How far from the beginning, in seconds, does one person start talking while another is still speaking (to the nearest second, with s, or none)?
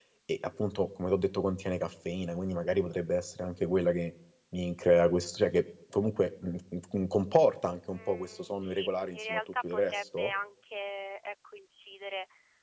8 s